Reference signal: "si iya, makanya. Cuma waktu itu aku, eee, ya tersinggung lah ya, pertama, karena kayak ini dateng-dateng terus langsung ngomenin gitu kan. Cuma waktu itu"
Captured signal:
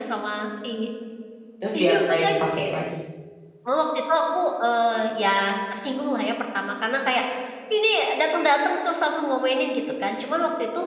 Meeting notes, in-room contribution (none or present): present